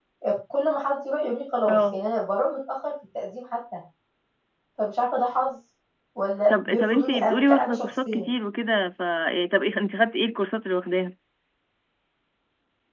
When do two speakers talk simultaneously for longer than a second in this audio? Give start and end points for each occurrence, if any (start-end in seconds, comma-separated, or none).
6.5-8.3